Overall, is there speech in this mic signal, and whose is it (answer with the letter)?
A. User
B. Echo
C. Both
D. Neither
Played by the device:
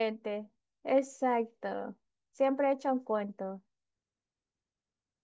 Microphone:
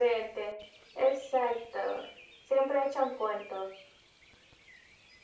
B